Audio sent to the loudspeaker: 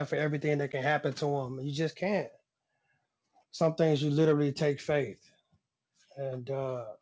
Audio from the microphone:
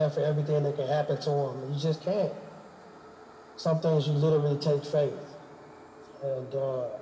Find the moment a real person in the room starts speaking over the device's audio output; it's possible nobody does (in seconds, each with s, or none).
none